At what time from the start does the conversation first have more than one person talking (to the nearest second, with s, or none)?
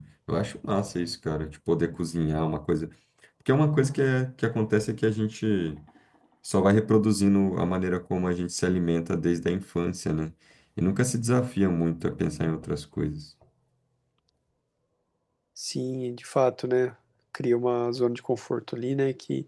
none